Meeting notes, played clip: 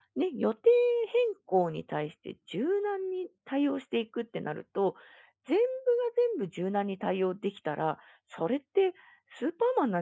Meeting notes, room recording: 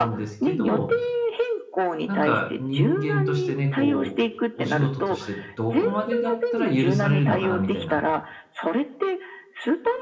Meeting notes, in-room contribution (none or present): present